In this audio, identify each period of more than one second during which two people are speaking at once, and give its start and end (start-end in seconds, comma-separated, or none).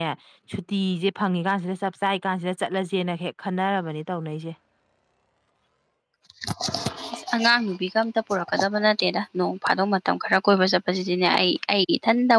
none